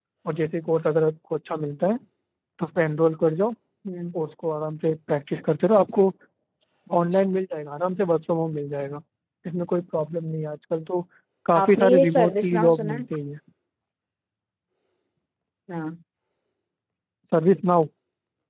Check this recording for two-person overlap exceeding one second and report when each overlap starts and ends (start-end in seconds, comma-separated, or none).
11.6-13.0